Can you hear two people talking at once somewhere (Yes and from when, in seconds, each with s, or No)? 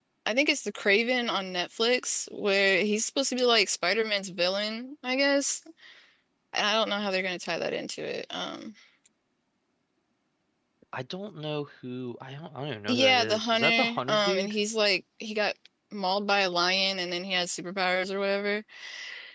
Yes, from 12.9 s